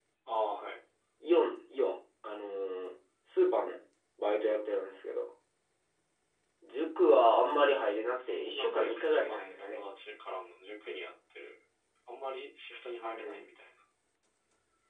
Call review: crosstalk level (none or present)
present